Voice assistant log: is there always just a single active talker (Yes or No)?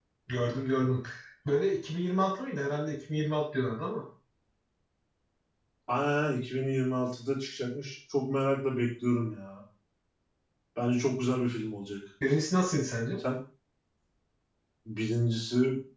Yes